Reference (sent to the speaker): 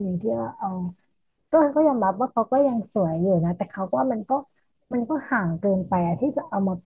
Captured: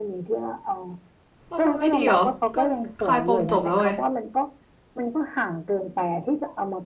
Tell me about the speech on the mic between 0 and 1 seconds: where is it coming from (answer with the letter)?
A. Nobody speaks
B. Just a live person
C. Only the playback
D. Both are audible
C